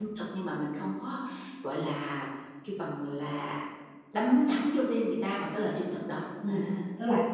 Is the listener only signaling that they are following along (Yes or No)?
No